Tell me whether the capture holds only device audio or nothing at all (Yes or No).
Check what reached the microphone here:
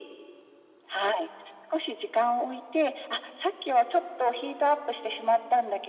Yes